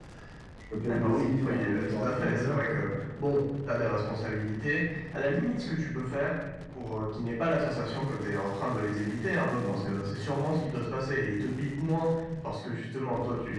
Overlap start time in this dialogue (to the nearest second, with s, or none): 1 s